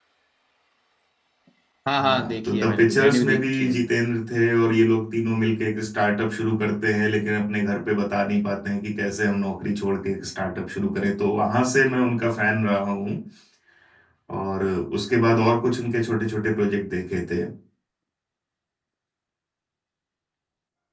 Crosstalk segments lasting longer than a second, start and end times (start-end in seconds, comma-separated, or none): 2.0-3.7